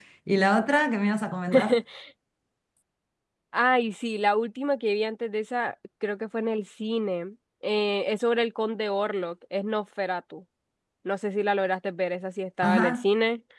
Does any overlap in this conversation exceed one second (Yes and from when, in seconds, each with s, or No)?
No